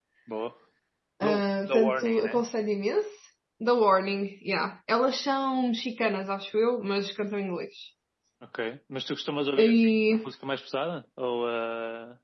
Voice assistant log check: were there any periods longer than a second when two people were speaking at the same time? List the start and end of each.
1.2-2.4

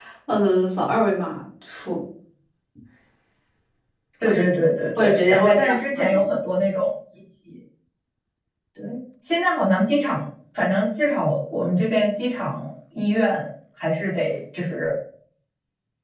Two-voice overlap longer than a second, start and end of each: 5.0-6.2

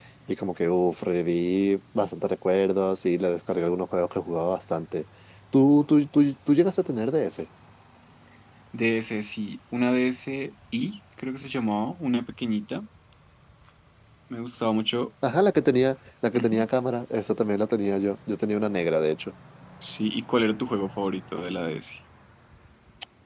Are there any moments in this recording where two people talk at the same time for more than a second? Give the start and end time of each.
none

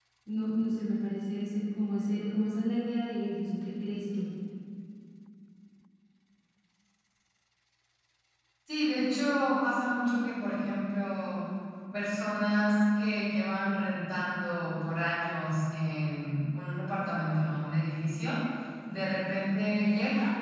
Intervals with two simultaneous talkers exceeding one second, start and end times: none

